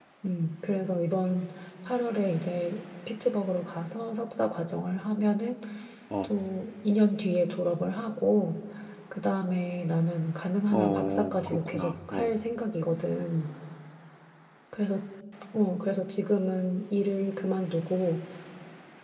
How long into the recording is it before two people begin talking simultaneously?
10.7 s

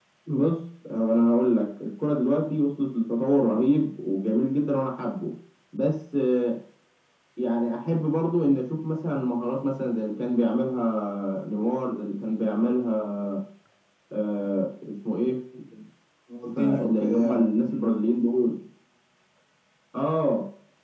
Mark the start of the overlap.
16.6 s

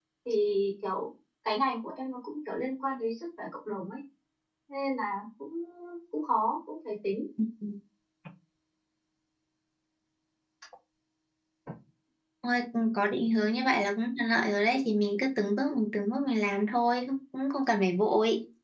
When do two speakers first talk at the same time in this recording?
none

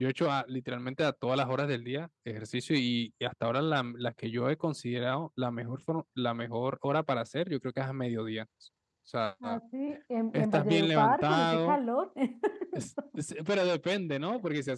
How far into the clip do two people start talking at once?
10.3 s

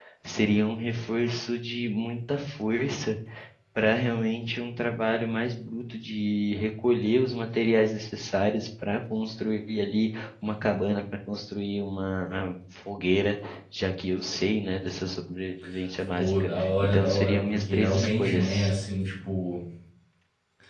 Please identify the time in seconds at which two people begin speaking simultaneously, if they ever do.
16.2 s

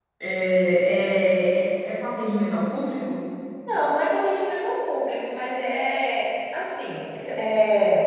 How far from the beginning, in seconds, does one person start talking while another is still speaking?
none

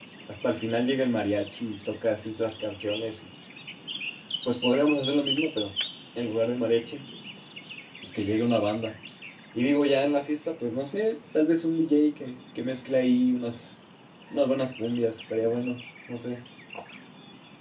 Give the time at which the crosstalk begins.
none

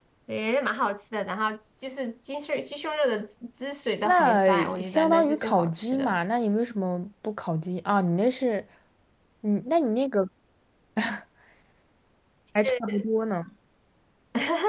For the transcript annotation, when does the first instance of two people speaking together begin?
4.0 s

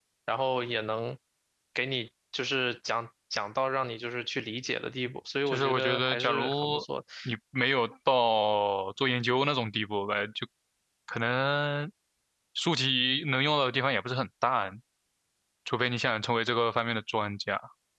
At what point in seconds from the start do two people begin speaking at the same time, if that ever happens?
5.5 s

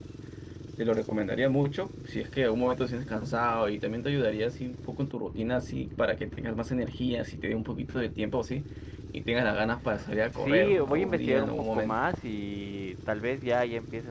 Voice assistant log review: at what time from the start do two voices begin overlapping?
10.4 s

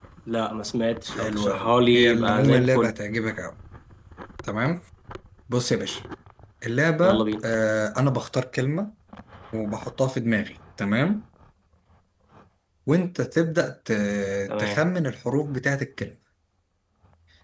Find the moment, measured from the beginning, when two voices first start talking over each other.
1.2 s

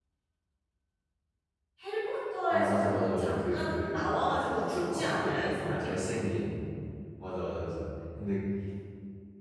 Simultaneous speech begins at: 2.5 s

